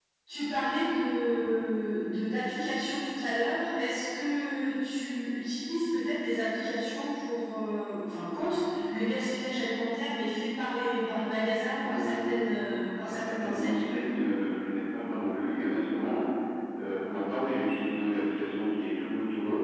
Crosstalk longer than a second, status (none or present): present